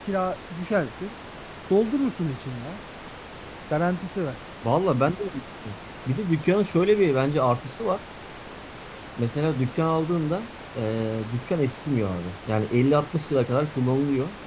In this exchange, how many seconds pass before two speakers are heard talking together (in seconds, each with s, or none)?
none